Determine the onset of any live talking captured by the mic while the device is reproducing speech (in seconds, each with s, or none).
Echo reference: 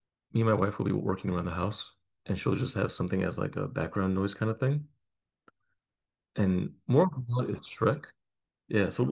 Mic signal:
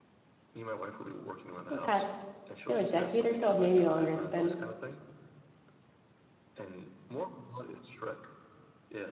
1.7 s